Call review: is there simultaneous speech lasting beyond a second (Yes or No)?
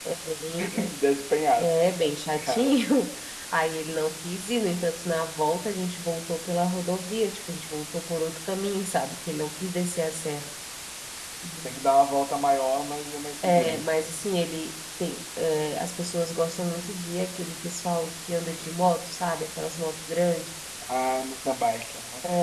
No